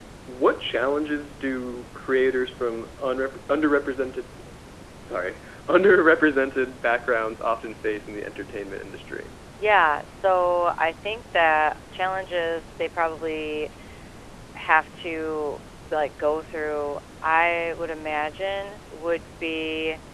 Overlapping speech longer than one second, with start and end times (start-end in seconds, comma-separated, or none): none